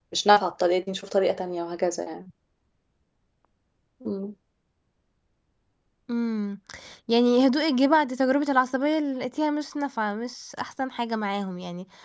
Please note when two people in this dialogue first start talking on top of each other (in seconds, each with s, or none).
none